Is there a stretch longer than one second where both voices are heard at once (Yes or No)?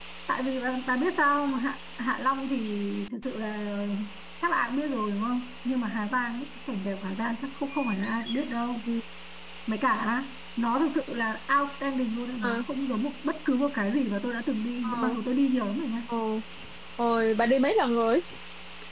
No